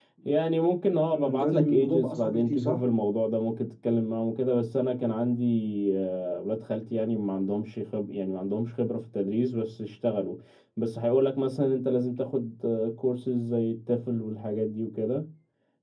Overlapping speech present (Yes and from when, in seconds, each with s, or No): Yes, from 1.1 s